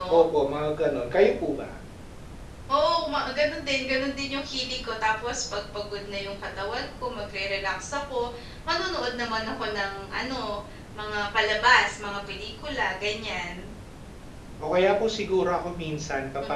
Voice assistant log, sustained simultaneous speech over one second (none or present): none